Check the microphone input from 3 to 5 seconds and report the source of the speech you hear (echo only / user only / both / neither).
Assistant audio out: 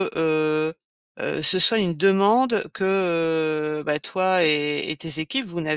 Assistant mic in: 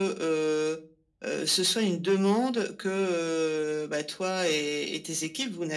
echo only